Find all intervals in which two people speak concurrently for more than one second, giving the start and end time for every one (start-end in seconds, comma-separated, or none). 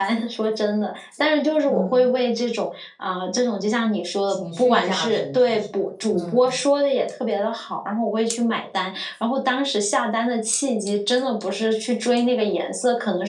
4.3-5.6